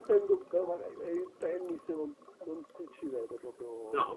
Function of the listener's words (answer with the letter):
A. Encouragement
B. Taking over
B